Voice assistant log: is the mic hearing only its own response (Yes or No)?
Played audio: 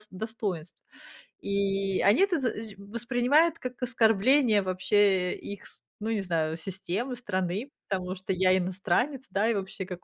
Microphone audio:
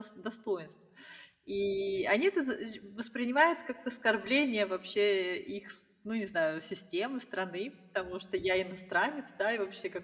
Yes